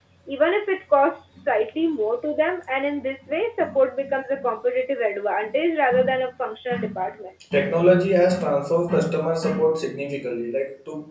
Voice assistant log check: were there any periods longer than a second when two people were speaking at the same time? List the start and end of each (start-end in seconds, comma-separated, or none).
none